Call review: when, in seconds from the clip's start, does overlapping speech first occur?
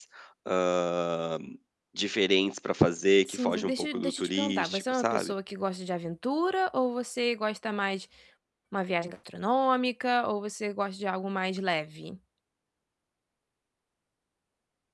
3.2 s

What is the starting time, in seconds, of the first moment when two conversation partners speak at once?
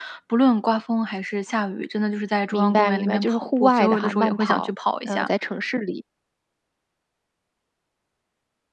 2.5 s

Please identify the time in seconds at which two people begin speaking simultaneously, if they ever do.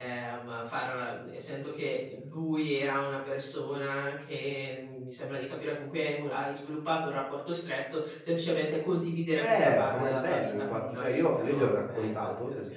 9.4 s

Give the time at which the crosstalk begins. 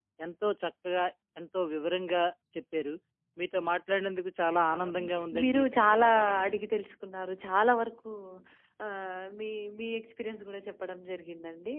4.7 s

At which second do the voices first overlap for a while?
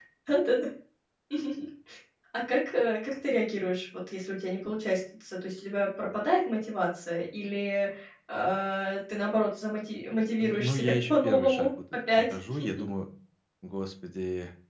10.4 s

